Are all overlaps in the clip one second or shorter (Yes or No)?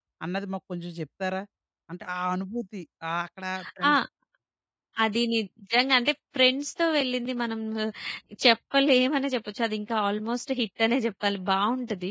Yes